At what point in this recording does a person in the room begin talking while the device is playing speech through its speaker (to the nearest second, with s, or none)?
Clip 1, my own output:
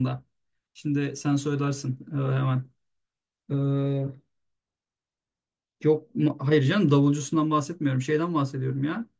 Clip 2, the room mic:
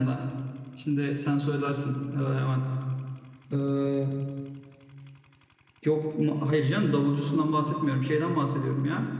none